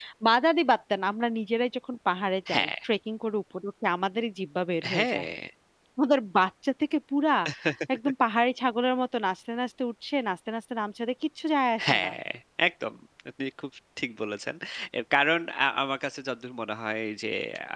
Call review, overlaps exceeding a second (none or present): none